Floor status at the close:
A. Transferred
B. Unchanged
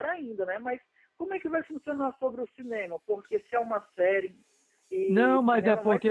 A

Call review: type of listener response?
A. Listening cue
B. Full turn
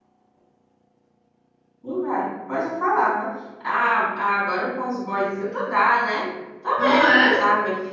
A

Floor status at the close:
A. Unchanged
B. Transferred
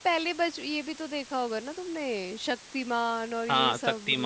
B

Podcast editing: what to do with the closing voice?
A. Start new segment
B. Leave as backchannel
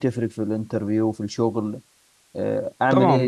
A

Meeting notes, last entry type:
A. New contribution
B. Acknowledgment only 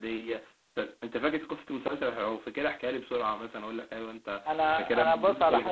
A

